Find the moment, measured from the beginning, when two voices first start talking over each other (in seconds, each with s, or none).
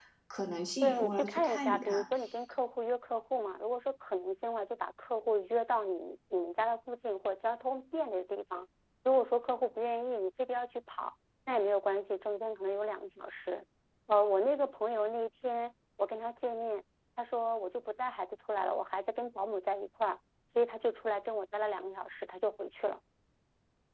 0.8 s